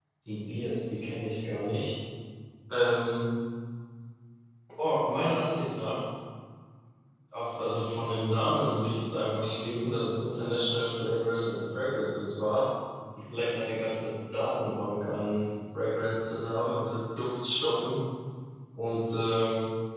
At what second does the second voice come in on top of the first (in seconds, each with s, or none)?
none